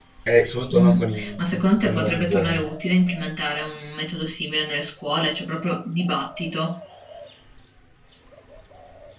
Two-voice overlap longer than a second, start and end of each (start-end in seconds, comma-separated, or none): 0.7-2.7